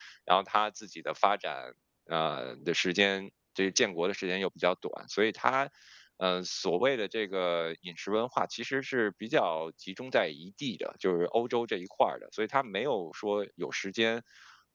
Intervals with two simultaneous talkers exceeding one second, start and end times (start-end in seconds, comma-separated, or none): none